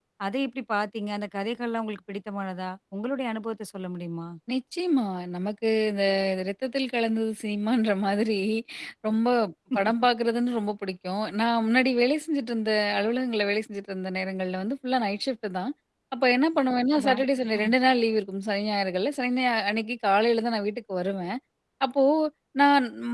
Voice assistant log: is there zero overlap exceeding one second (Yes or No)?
Yes